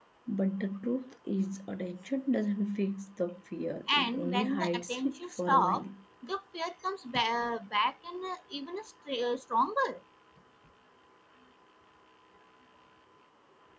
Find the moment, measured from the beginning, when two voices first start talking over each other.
3.9 s

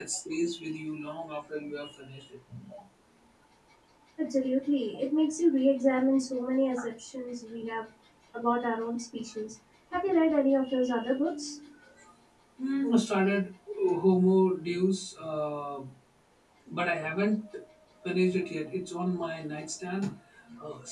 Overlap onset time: none

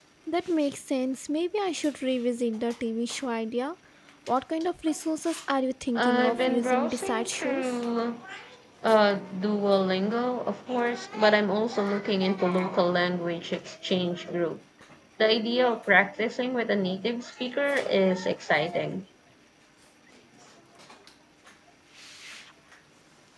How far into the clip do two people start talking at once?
6.0 s

